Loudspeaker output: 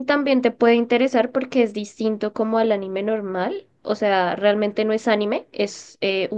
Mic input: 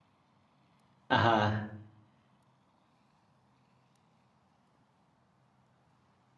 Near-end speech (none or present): present